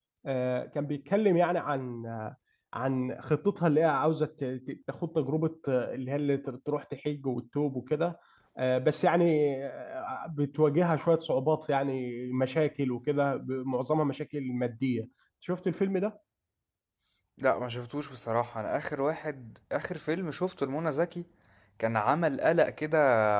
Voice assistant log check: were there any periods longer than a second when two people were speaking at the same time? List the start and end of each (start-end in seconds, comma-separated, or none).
none